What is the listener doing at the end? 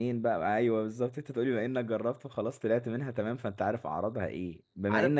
listening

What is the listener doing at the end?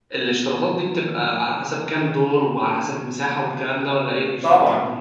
taking over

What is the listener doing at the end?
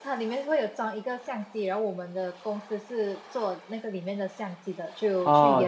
listening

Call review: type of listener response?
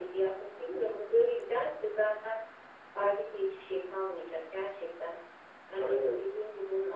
listening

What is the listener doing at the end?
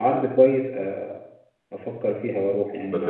taking over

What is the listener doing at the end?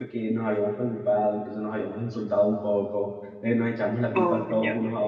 listening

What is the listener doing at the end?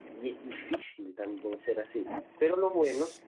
listening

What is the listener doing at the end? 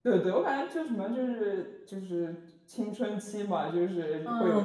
taking over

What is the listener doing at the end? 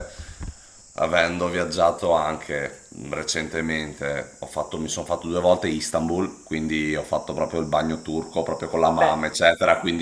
listening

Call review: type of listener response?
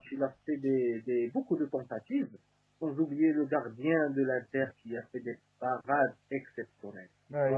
taking over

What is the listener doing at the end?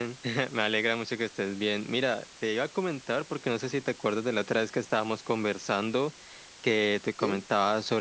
listening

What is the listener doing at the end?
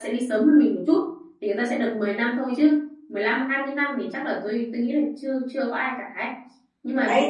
taking over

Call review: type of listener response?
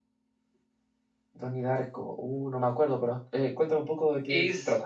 taking over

